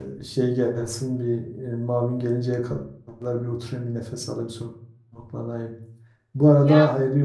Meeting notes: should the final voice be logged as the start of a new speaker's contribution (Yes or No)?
No